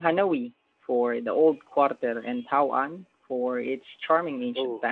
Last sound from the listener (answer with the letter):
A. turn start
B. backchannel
A